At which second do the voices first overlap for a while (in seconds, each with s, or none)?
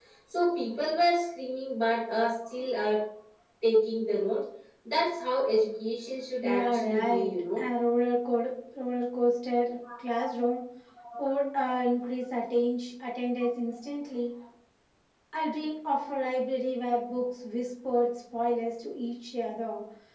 6.4 s